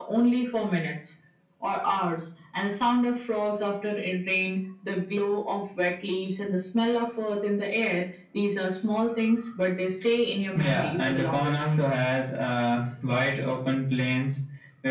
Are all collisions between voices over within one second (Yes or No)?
No